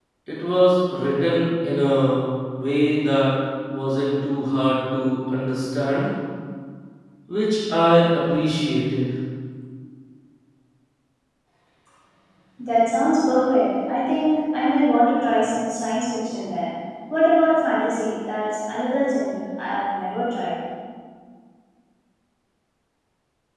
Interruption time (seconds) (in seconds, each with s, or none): none